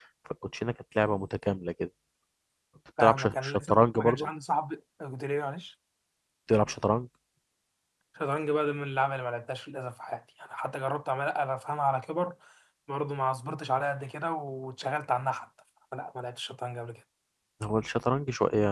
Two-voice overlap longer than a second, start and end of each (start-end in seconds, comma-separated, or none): 3.0-4.3